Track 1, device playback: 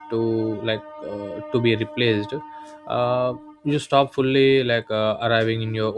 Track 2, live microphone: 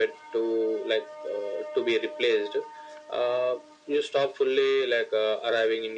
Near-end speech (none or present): none